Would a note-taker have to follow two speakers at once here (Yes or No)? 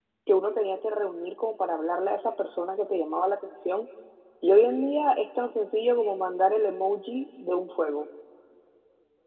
No